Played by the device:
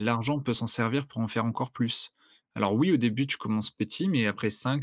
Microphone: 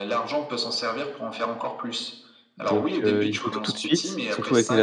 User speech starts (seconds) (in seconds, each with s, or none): 2.6 s